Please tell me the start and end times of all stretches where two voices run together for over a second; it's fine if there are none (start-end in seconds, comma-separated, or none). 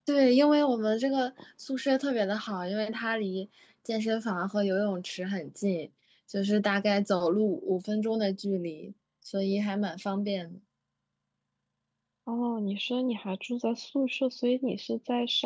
none